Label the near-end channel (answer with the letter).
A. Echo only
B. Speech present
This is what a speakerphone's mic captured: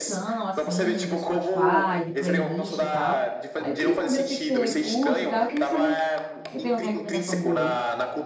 B